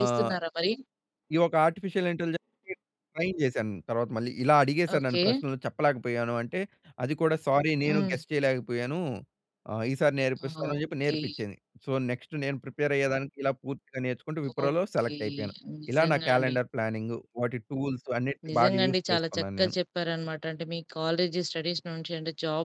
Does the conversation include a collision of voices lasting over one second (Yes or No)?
Yes